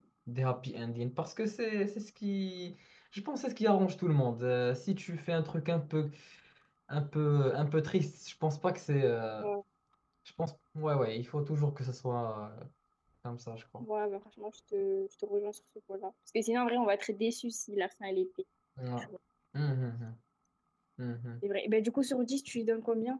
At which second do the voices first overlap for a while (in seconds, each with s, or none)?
none